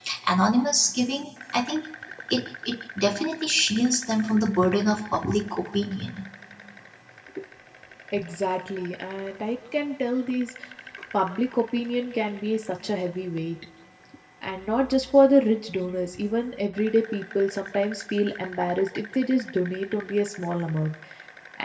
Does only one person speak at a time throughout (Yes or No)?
Yes